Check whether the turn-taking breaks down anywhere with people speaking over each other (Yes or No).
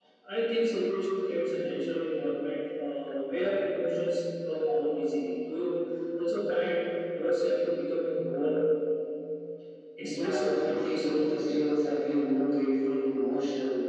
Yes